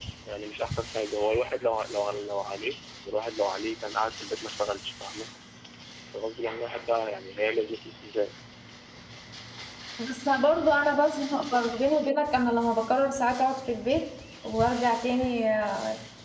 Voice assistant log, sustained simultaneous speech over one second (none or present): none